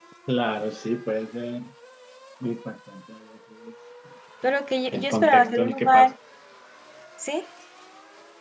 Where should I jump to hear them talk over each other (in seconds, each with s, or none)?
4.9 s